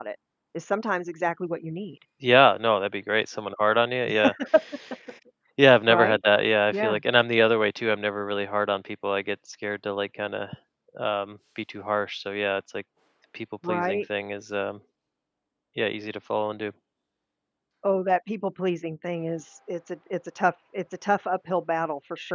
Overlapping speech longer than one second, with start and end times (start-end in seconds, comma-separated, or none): none